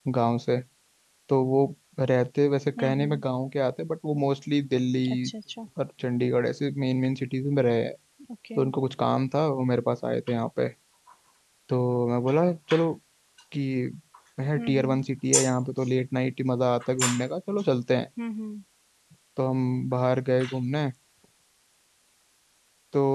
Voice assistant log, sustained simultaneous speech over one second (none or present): none